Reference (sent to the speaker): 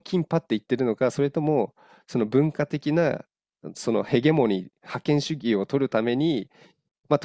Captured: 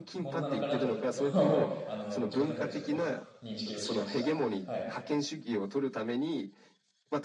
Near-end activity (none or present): present